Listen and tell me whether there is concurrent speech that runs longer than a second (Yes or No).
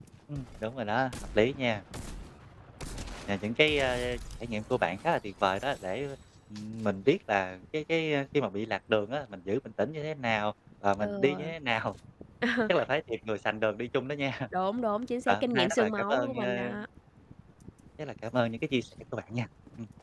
Yes